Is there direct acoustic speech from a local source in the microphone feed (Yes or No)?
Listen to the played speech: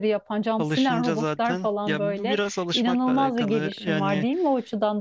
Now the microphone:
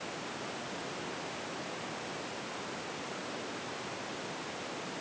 No